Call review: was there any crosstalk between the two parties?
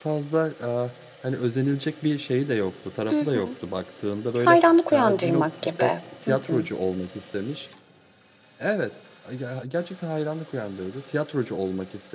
Yes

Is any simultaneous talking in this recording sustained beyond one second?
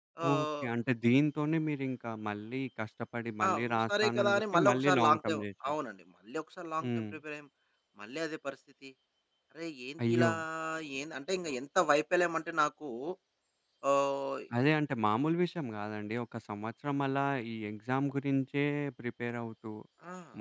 Yes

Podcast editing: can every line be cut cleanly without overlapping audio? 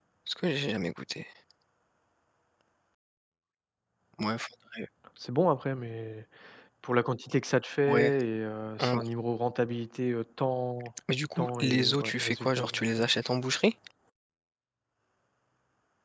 No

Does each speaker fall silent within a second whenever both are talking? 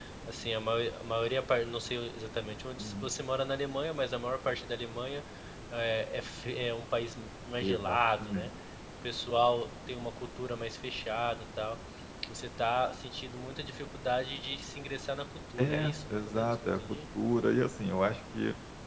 No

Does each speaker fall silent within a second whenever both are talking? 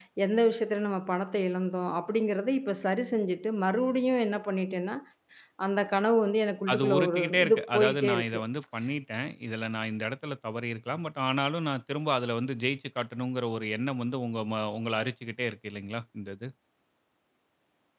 No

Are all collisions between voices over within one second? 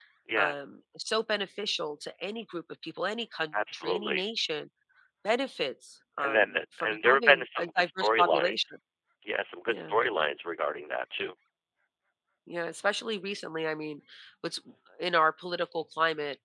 No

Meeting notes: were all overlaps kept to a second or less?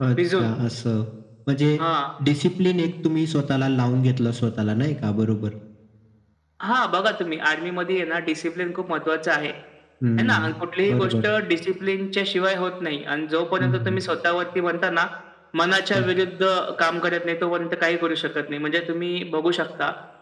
Yes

